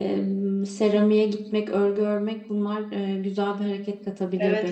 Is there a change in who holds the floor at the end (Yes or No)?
Yes